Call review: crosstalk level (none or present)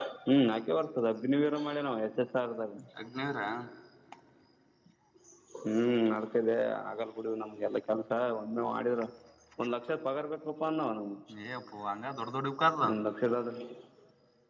none